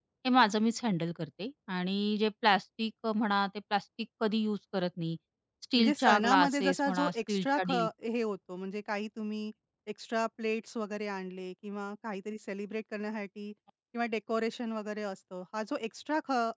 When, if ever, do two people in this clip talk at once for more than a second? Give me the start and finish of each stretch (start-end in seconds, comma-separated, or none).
5.8-7.9